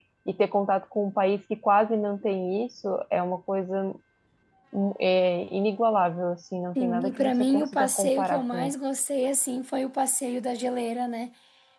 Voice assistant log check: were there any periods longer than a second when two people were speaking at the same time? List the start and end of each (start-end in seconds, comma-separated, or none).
6.8-8.7